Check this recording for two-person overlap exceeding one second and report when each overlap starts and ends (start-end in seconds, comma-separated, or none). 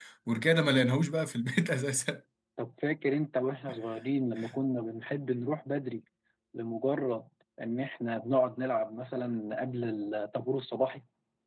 none